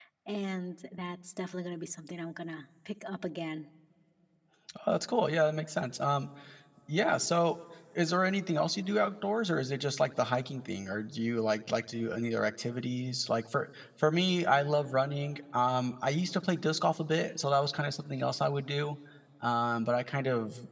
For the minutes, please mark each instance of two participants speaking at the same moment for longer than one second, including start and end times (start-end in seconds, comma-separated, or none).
none